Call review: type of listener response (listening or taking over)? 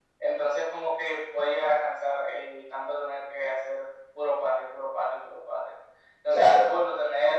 listening